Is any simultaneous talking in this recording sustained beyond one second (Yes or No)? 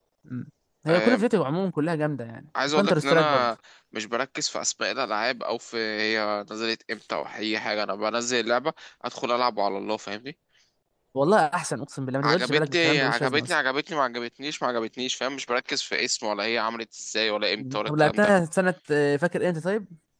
Yes